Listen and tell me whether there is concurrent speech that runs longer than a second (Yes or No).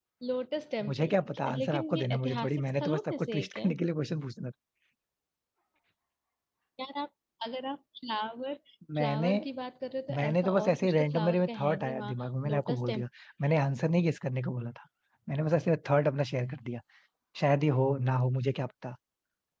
Yes